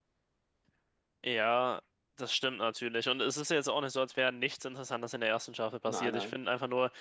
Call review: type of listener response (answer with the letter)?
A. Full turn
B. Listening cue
B